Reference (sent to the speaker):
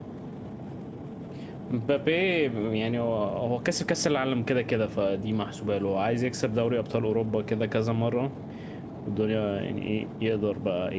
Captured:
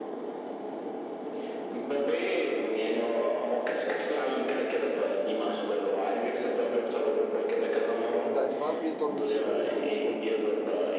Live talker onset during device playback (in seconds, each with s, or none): 8.2 s